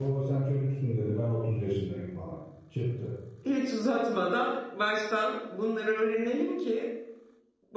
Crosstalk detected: No

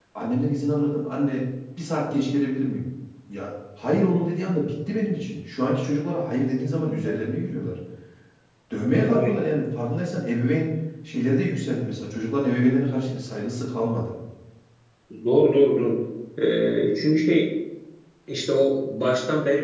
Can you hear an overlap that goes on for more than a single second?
No

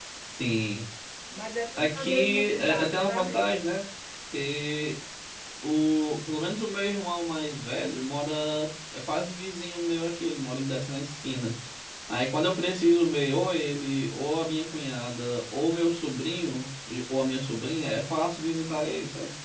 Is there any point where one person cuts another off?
Yes, from 1.8 s

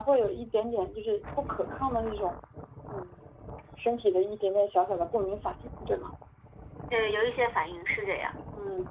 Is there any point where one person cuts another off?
No

